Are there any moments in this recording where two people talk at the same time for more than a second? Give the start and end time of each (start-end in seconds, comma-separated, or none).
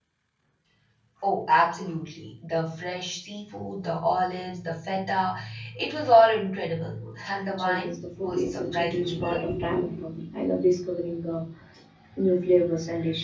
7.3-9.5